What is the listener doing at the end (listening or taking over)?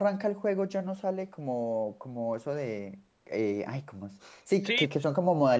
listening